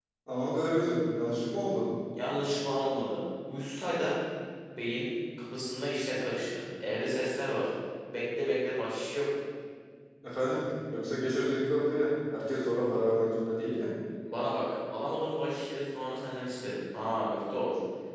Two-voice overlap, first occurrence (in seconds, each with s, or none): none